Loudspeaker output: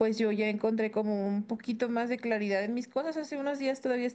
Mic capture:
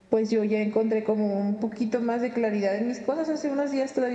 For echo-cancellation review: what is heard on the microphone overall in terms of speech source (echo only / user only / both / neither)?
echo only